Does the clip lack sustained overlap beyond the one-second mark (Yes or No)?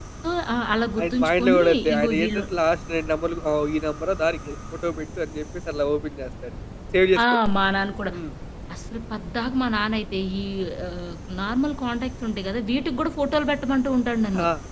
No